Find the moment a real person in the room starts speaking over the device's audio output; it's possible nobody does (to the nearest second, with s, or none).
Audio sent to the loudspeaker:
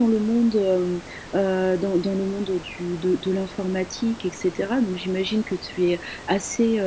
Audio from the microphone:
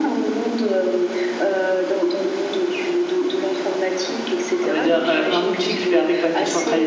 5 s